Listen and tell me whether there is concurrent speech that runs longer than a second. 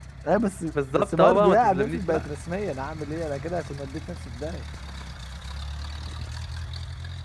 Yes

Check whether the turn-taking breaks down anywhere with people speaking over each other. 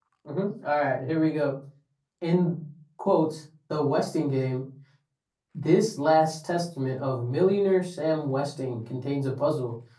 No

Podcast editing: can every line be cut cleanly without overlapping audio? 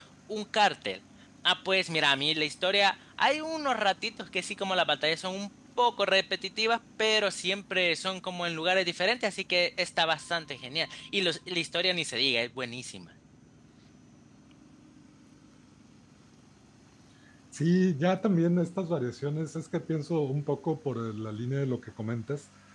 Yes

